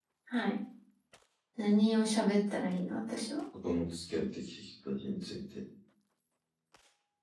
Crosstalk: none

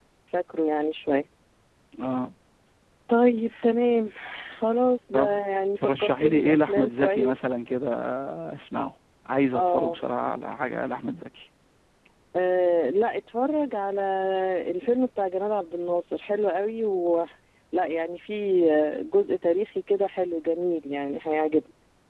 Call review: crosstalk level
present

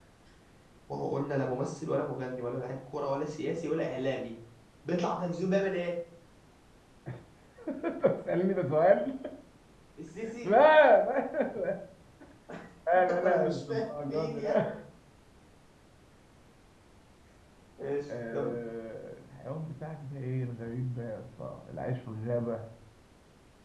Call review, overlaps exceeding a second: present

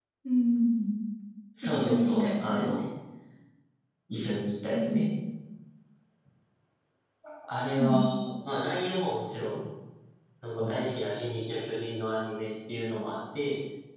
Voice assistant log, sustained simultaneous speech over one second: present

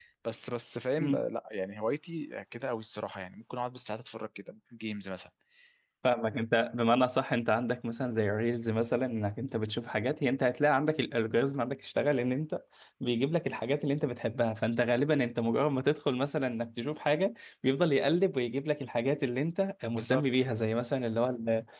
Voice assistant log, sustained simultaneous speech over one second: none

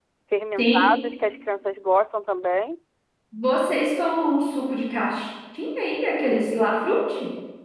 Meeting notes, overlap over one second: none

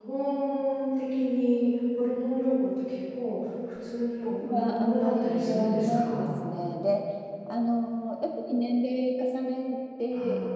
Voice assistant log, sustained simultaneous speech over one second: present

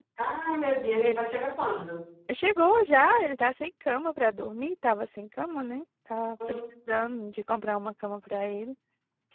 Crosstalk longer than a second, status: none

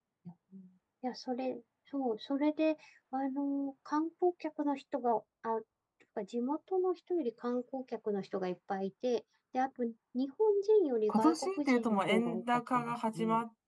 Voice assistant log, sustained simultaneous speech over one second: present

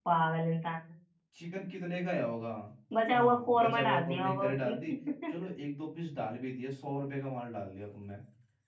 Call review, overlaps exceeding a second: present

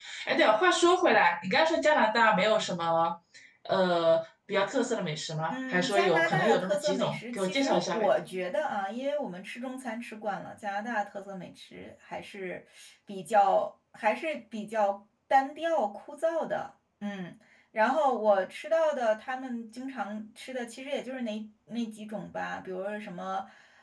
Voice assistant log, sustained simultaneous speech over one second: present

